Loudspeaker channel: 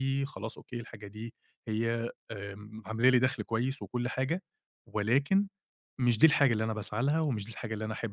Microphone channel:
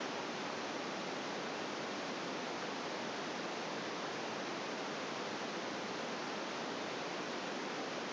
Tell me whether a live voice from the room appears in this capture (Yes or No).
No